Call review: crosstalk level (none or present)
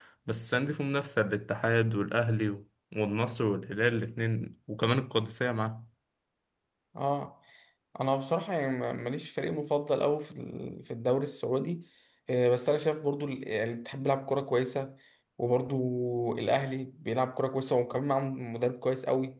none